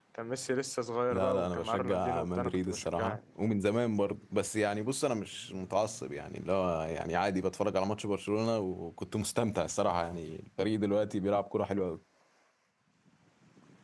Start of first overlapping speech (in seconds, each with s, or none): 1.1 s